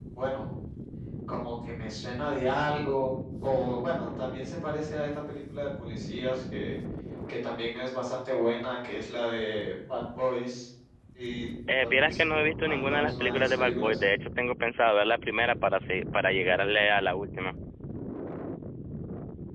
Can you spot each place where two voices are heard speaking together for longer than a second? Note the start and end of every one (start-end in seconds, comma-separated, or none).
11.8-14.0